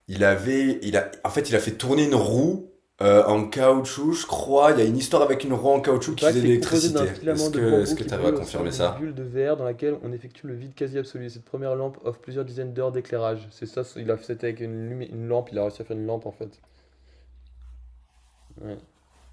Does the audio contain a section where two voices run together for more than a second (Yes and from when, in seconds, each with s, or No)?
Yes, from 6.1 s